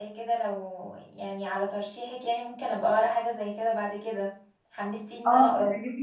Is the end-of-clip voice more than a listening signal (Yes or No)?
Yes